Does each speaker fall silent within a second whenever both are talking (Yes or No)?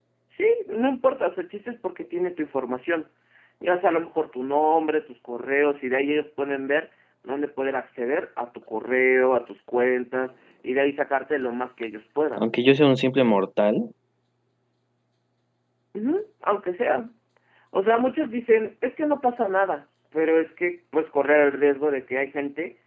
Yes